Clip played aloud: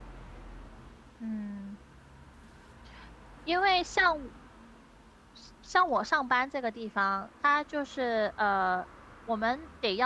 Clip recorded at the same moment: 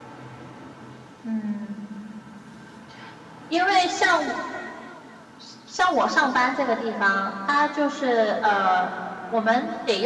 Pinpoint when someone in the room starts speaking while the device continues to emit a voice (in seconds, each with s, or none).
none